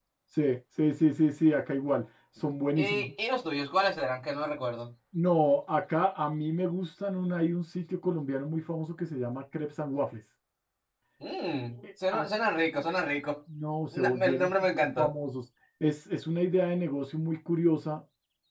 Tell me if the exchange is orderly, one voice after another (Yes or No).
No